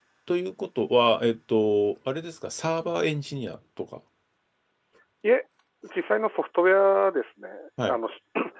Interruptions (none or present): none